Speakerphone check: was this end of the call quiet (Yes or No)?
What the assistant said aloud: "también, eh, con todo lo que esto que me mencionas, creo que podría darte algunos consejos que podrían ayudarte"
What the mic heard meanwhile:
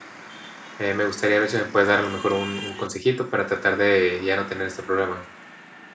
No